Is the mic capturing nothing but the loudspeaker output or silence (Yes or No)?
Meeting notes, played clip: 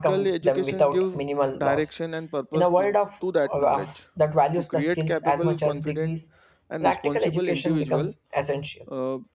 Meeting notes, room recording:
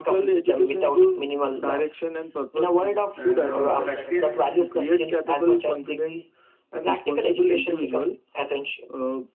No